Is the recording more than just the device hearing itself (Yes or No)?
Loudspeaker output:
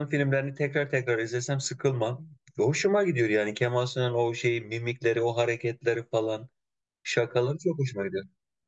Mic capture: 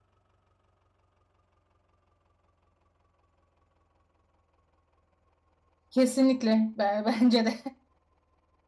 Yes